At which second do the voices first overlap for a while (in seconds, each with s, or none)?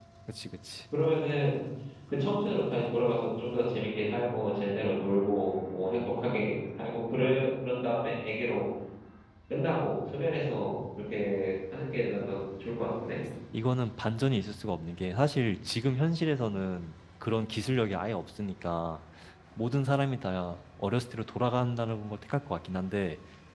none